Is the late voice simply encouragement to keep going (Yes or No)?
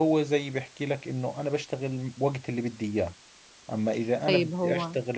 Yes